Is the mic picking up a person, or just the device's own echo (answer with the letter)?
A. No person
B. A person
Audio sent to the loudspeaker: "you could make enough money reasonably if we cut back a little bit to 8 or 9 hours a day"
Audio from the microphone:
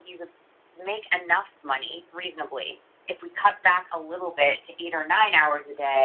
A